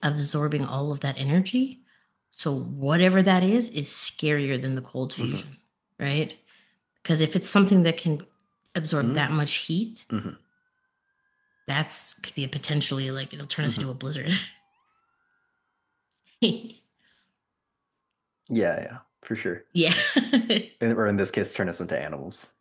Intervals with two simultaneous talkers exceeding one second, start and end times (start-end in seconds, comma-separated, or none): none